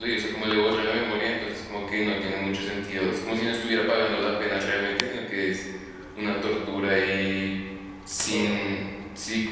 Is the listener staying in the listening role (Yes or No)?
Yes